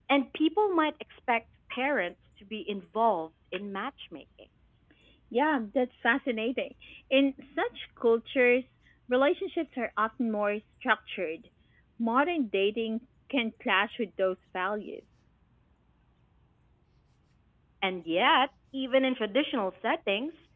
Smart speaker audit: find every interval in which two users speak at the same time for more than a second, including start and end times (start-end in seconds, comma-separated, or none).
none